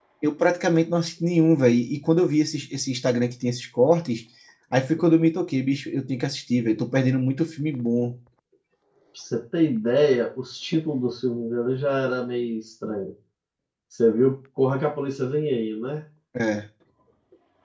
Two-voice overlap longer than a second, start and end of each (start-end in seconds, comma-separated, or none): none